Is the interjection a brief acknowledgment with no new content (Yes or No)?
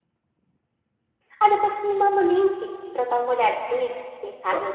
Yes